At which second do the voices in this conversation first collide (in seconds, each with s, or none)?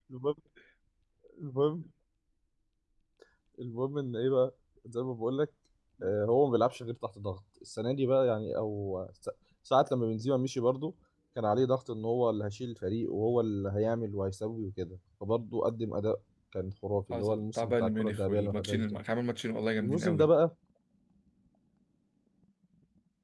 17.1 s